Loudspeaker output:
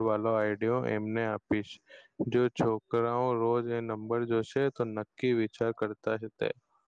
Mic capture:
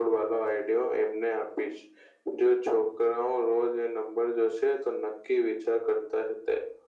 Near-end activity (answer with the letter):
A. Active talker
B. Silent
B